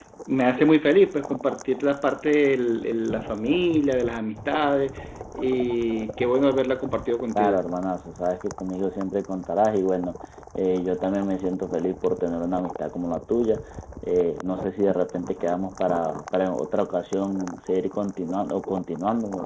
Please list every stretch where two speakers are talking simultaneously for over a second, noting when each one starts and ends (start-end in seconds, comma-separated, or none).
none